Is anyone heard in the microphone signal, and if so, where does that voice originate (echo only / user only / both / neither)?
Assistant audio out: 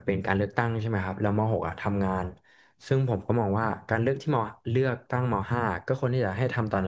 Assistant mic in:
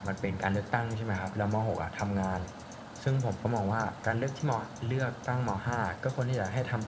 echo only